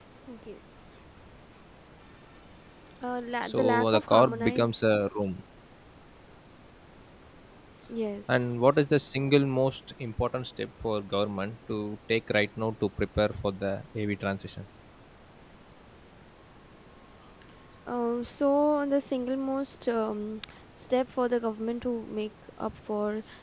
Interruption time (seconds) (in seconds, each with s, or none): 3.4 s